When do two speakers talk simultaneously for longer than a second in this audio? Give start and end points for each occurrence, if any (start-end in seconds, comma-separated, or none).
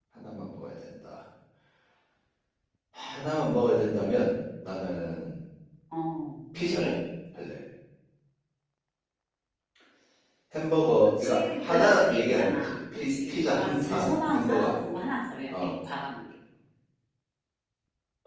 11.0-14.7